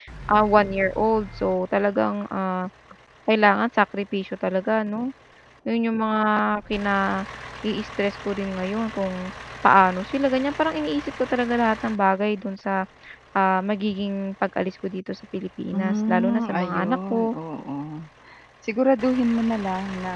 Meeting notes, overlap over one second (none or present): present